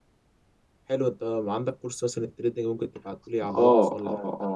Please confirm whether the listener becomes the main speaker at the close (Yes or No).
Yes